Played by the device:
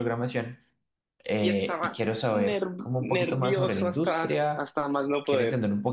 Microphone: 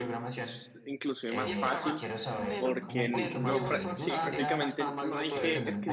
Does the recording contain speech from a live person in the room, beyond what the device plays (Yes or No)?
Yes